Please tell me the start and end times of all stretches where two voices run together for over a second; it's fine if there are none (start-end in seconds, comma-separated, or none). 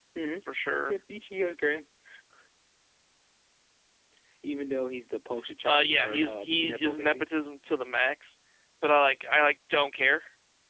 5.6-7.2